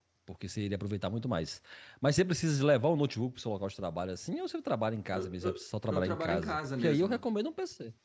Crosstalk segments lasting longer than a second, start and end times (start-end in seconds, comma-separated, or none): 5.1-7.2